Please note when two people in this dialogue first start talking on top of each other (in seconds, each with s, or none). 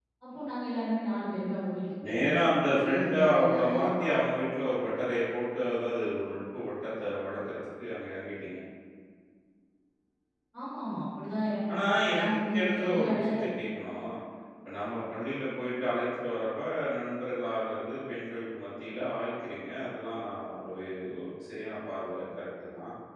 2.1 s